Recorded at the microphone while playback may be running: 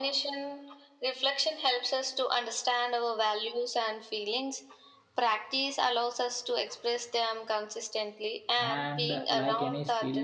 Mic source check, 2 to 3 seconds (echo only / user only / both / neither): echo only